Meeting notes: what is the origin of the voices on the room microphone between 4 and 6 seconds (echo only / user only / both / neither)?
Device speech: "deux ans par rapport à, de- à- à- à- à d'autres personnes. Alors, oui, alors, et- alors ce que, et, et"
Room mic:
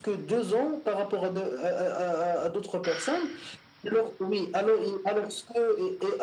echo only